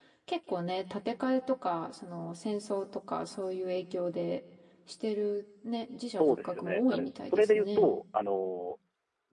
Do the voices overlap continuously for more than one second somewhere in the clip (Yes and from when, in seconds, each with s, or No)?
Yes, from 6.2 s